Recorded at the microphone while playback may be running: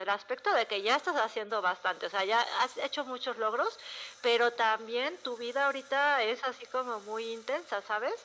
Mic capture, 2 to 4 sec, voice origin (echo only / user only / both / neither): echo only